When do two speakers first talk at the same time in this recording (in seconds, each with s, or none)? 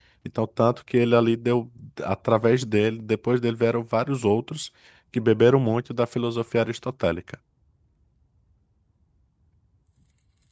none